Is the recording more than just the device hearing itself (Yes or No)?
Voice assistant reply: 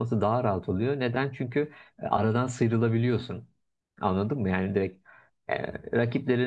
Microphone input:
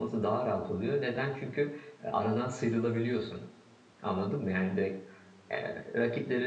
No